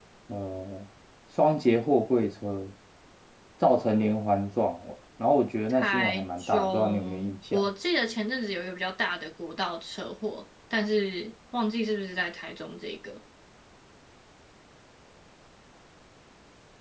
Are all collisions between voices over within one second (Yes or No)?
No